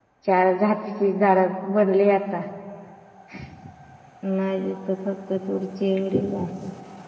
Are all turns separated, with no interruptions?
Yes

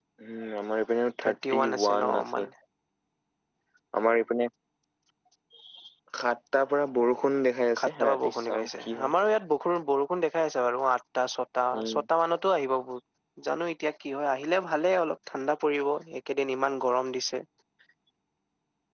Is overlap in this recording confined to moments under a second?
No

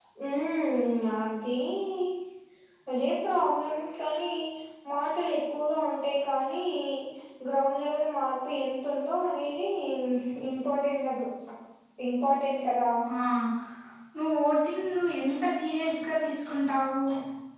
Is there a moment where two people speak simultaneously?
No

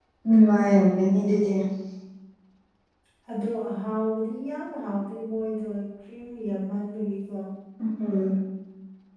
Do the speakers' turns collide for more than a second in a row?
No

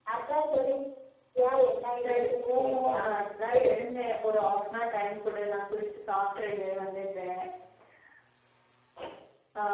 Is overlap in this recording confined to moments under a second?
No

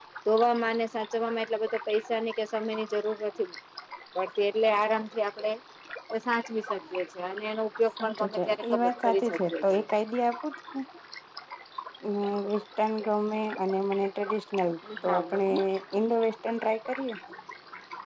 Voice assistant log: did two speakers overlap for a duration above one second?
Yes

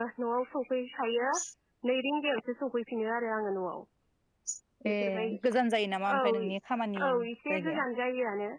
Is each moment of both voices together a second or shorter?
Yes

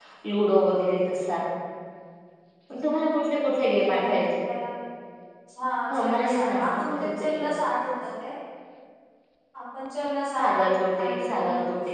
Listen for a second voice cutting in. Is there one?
Yes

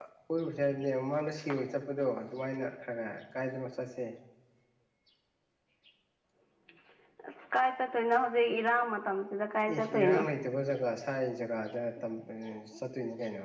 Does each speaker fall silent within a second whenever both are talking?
Yes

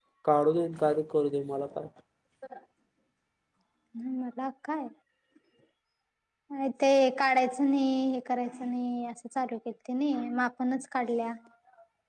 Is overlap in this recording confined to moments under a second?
Yes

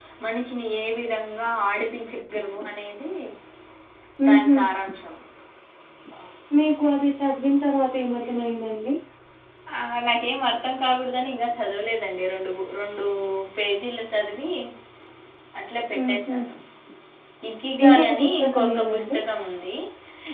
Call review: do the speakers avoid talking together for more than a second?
No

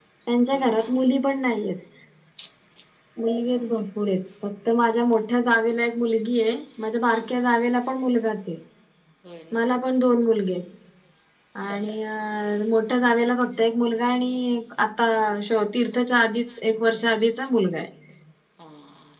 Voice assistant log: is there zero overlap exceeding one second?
Yes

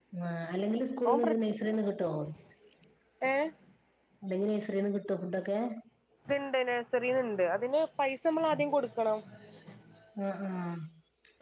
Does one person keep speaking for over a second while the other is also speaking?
No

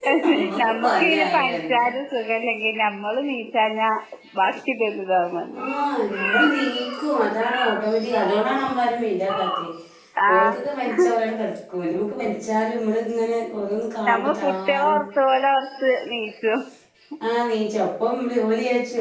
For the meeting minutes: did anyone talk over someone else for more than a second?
Yes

